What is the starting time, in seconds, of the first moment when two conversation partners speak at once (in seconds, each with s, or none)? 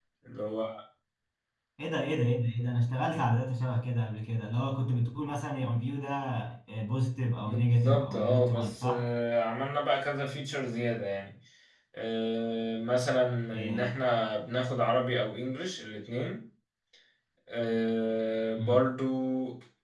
7.4 s